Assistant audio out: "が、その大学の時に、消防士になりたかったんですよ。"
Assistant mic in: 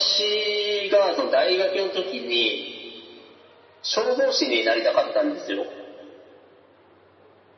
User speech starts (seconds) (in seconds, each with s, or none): none